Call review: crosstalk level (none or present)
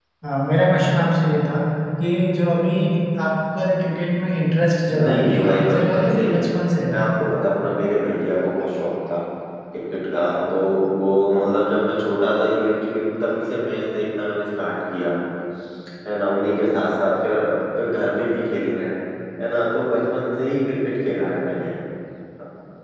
present